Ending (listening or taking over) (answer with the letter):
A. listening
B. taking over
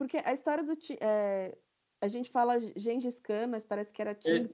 B